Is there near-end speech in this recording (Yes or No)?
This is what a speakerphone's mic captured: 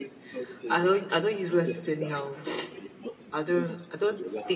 Yes